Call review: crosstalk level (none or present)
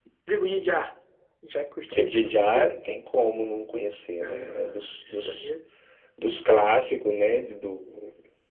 present